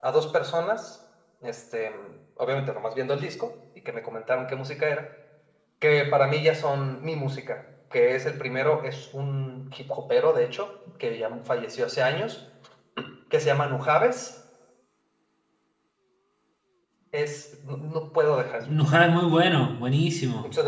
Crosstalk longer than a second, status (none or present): none